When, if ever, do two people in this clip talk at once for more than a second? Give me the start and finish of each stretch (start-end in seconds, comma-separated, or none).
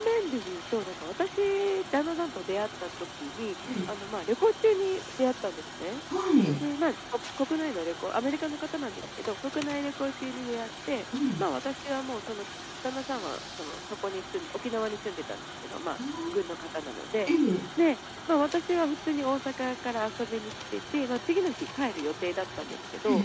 none